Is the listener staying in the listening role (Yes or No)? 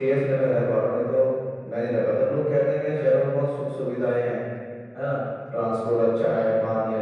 Yes